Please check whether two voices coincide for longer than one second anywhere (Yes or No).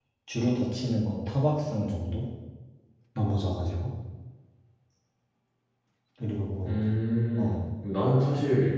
No